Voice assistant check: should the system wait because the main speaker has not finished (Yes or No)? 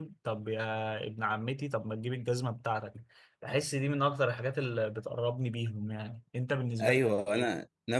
No